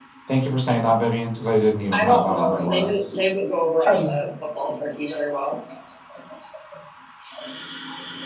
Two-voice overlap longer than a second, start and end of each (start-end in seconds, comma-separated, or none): 1.9-3.2